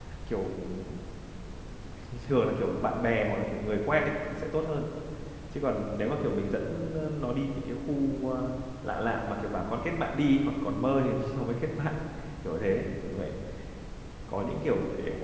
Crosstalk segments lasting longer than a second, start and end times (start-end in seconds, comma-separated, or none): none